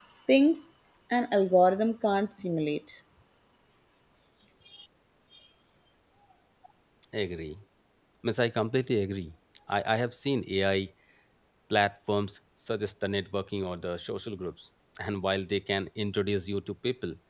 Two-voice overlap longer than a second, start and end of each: none

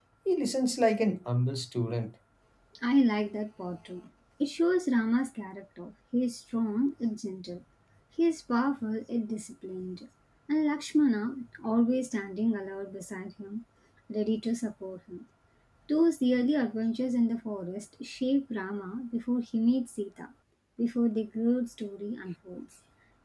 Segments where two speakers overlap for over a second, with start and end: none

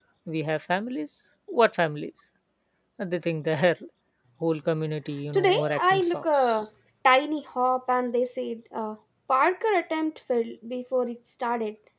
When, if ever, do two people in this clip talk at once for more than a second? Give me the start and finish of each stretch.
5.3-6.7

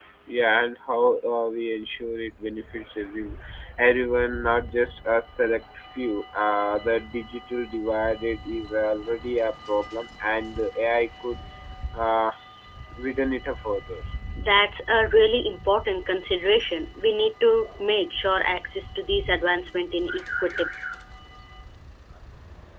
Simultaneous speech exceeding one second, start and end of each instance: none

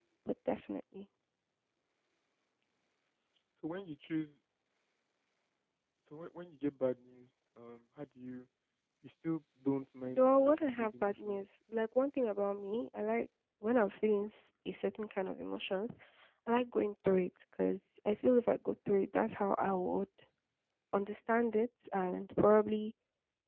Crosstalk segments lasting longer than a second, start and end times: 10.2-11.4

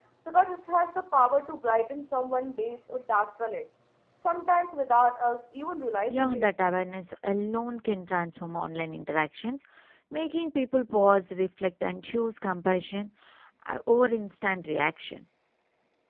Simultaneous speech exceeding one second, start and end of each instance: none

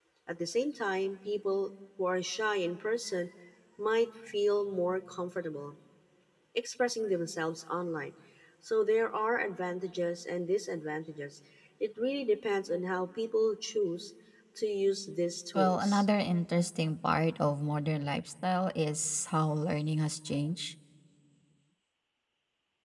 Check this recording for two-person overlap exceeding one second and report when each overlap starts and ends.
none

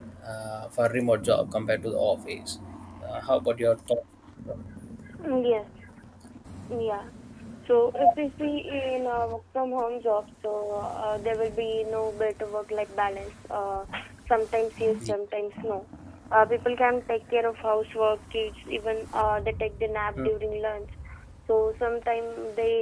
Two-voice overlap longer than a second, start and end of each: none

